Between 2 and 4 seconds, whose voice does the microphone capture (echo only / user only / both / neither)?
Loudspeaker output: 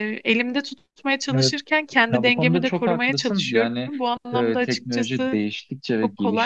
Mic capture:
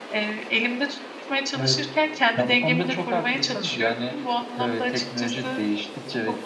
echo only